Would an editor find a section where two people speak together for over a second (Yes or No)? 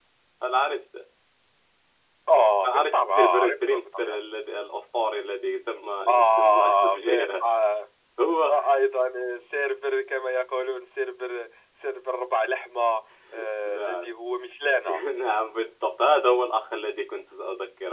Yes